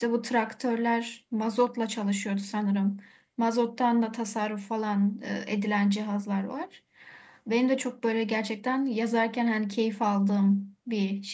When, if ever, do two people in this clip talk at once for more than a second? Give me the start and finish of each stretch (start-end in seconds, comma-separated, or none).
none